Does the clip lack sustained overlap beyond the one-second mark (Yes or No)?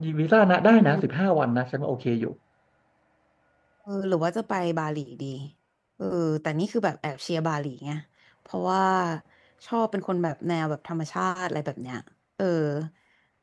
Yes